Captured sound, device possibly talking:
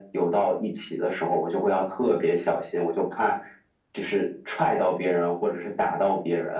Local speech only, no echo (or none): none